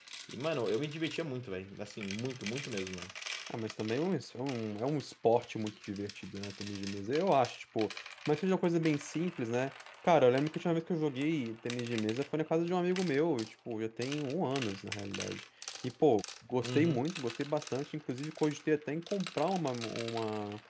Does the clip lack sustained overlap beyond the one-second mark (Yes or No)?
Yes